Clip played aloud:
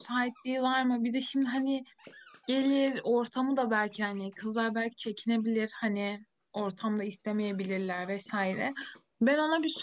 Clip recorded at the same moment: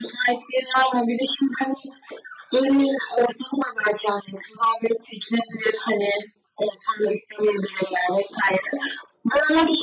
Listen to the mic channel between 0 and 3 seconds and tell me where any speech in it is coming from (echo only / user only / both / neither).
echo only